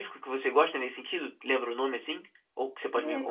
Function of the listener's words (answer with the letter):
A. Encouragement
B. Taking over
B